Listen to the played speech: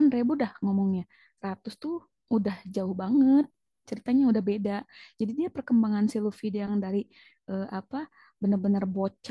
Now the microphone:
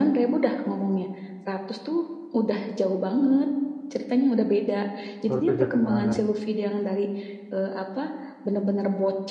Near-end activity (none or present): present